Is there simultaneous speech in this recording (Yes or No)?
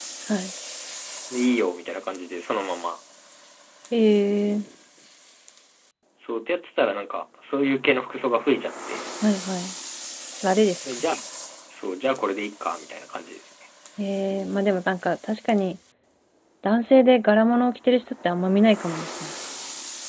No